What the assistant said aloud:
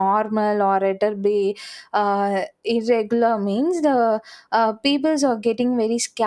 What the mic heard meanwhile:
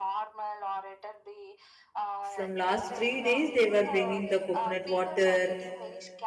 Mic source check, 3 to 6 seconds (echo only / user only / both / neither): both